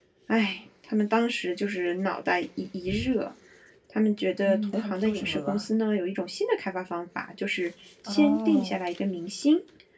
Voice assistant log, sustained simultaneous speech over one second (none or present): present